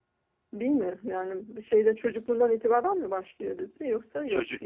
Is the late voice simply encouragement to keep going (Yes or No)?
No